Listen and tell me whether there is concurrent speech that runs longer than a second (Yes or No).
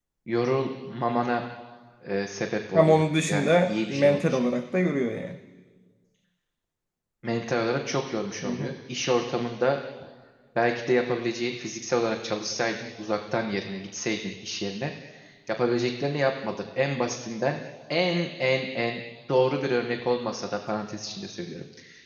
Yes